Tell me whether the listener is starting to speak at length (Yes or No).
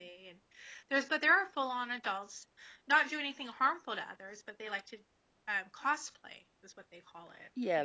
Yes